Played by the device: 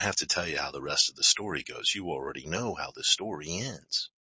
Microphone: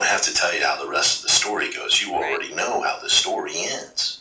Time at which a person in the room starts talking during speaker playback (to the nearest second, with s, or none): 2 s